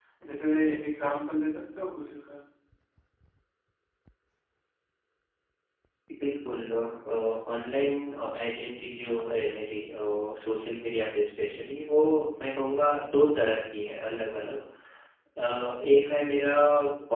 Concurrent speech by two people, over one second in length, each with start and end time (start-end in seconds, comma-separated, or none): none